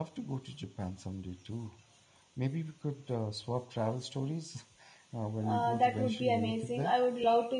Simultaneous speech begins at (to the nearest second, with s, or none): 5 s